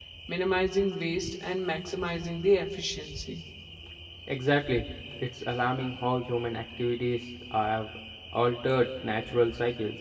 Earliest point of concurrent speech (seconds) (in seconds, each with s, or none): none